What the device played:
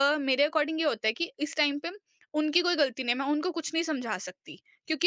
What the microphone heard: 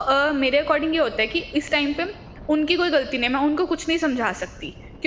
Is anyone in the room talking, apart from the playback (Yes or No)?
No